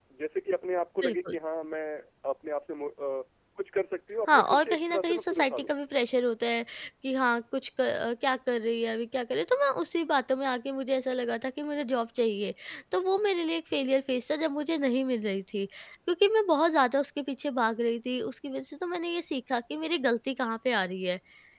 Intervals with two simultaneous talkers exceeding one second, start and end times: 4.3-5.7

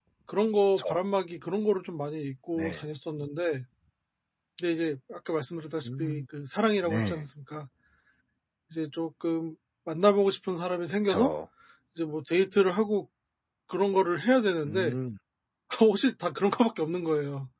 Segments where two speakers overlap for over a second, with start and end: none

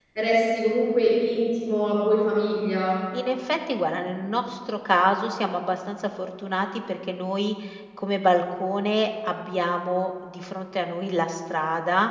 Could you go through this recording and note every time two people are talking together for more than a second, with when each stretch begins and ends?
none

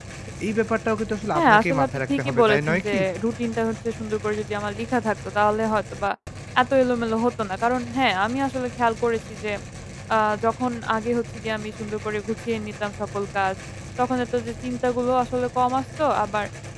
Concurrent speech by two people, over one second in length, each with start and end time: 1.4-3.0

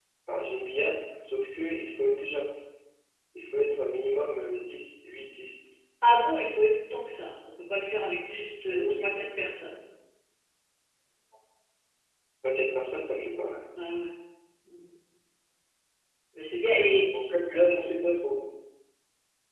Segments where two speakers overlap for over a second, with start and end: none

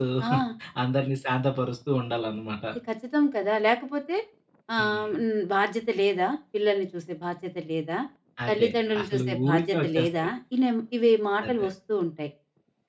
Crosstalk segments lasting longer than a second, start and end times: 8.5-10.3

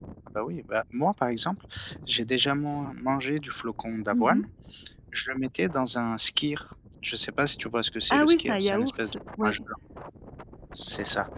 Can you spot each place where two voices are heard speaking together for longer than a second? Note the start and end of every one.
8.1-9.6

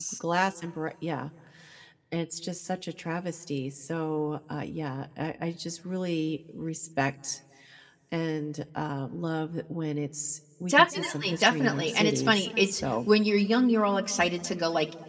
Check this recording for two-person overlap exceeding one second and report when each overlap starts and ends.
10.7-12.9

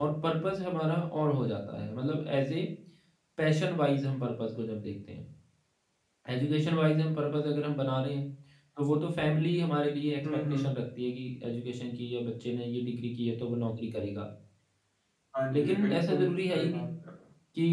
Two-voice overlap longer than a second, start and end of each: 15.5-16.9

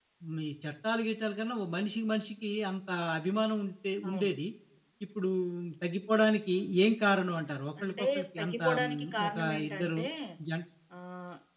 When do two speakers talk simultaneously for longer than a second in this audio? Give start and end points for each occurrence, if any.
7.8-10.0

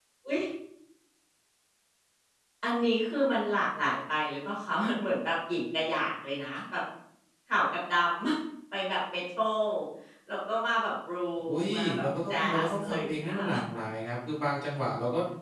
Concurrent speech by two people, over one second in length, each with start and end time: 11.5-13.5

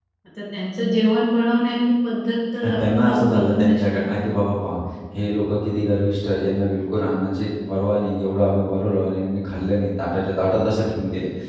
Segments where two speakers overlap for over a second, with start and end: 2.6-4.2

